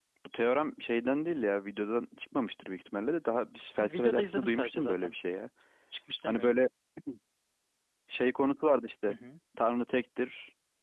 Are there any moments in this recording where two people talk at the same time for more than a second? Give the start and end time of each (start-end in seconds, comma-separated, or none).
3.8-5.1